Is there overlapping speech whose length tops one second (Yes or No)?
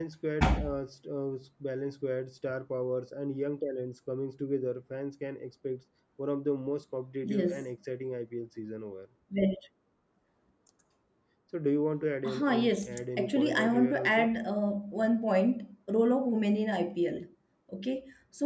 Yes